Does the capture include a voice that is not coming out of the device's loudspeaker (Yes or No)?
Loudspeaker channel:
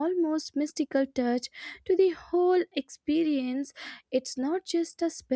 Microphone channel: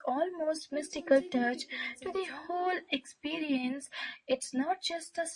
Yes